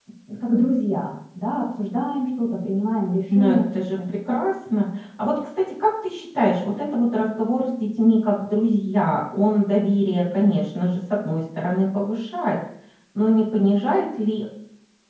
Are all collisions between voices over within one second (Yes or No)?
Yes